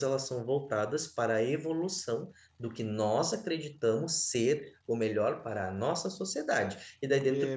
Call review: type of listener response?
listening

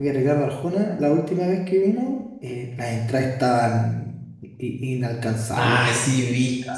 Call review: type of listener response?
taking over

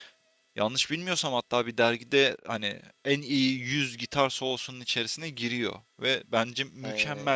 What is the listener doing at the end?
listening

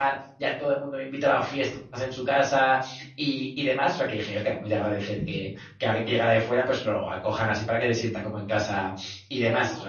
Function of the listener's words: taking over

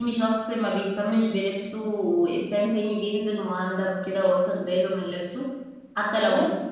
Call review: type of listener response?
listening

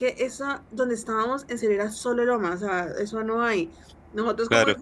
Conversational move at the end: listening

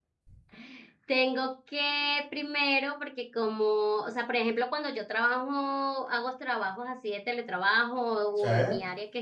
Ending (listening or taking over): listening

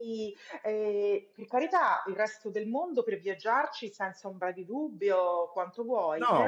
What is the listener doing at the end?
taking over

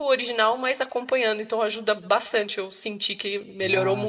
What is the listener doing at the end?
taking over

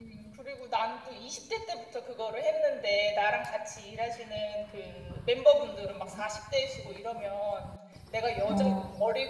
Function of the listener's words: listening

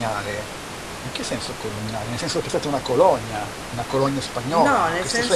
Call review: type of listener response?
taking over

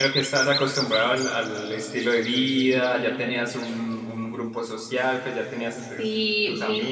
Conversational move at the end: taking over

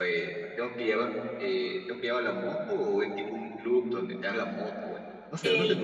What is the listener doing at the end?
taking over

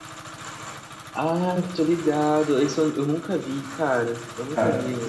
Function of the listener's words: taking over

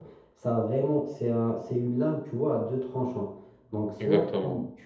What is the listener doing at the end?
listening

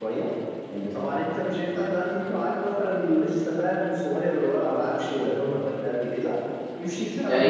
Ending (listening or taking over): taking over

